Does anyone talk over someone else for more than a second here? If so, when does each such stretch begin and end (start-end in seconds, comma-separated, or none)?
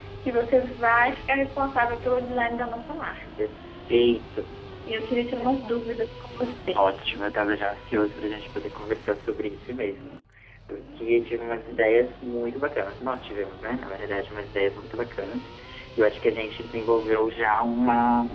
none